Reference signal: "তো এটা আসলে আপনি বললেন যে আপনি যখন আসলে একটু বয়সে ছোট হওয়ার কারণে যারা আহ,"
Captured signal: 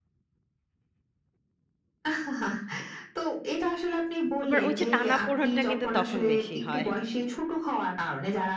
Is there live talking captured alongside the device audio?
Yes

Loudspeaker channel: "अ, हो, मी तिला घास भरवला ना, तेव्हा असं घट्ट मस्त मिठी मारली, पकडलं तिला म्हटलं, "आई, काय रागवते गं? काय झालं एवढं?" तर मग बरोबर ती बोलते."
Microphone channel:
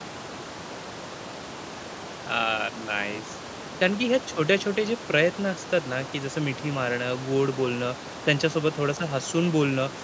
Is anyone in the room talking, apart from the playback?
Yes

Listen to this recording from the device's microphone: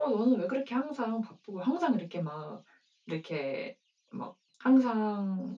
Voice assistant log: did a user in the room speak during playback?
No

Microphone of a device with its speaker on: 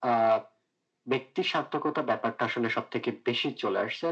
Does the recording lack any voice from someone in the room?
Yes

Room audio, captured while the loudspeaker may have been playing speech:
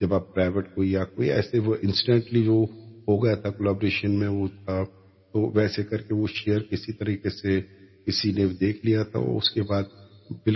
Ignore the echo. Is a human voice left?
Yes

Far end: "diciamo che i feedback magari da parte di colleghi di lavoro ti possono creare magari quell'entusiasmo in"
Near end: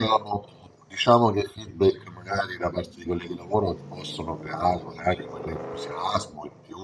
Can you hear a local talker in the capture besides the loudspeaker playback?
No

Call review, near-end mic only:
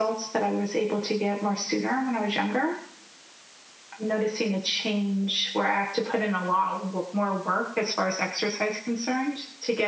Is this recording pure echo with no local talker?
Yes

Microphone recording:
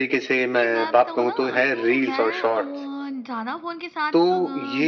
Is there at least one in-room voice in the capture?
Yes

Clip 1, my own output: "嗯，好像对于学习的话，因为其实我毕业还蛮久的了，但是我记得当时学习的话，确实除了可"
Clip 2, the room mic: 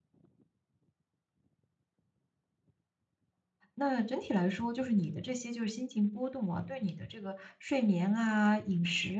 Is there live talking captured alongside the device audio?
Yes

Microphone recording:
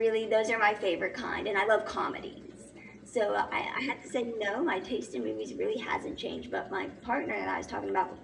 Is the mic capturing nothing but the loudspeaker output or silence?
No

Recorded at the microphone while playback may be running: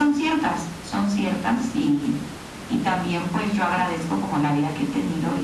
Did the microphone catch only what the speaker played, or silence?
Yes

